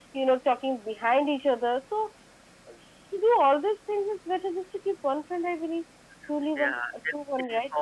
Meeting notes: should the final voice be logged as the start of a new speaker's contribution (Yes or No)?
Yes